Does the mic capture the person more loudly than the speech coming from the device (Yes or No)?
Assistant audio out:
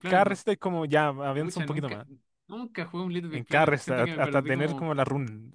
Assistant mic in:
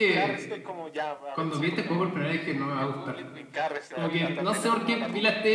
Yes